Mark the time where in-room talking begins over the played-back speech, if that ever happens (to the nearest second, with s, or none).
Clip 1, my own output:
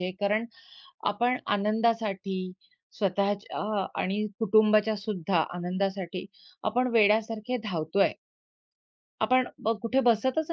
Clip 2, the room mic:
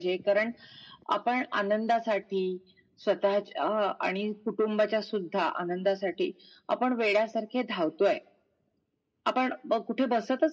none